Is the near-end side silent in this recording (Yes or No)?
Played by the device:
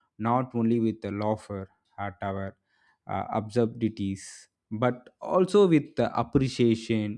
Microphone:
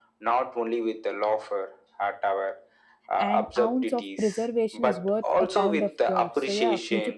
No